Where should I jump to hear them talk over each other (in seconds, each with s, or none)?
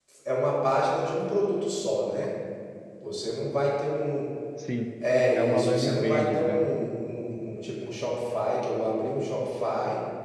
5.3 s